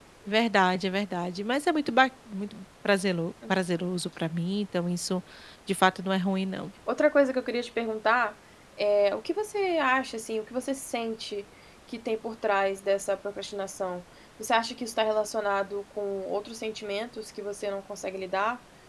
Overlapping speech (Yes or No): No